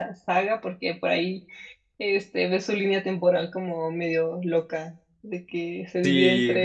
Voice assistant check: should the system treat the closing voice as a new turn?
Yes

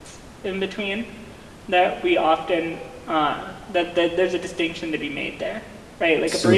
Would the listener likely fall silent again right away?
Yes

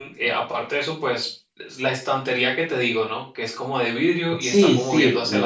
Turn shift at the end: Yes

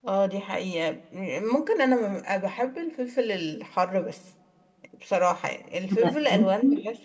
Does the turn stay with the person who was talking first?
Yes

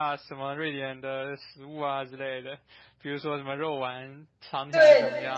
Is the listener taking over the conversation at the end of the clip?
Yes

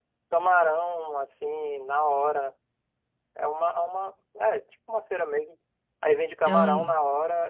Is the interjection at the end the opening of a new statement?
No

